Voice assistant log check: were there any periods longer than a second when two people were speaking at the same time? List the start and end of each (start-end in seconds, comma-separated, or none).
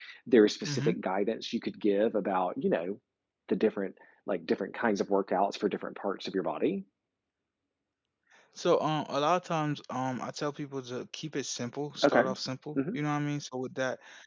none